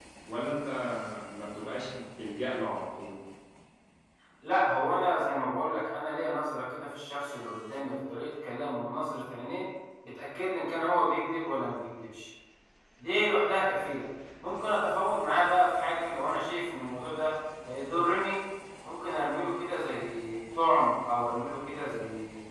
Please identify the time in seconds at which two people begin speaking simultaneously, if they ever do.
none

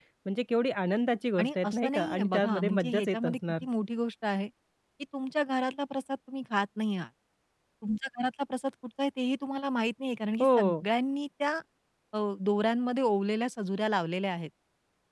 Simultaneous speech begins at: 1.4 s

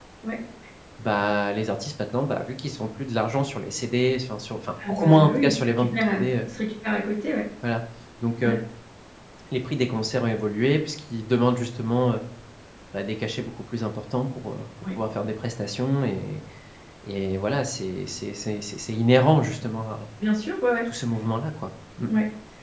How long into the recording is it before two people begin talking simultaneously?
4.8 s

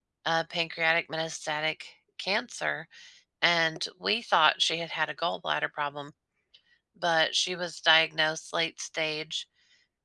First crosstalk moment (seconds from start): none

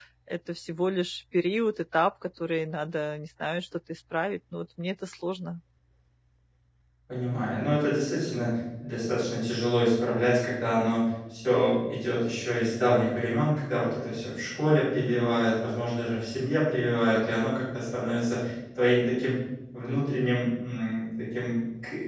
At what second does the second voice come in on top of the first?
none

